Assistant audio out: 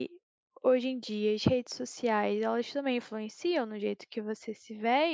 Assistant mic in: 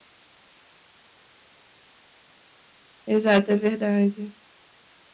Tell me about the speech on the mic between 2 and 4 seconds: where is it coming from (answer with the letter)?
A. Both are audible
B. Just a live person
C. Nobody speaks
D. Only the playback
B